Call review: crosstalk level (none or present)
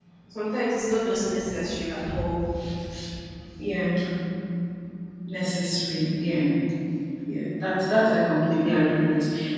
none